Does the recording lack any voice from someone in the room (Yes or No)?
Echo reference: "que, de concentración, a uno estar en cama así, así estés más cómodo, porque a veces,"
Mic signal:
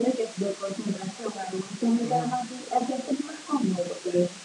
No